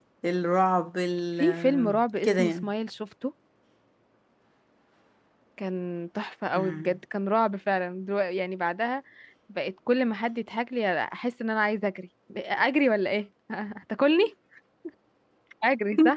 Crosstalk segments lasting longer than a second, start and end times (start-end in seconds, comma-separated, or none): 1.4-2.7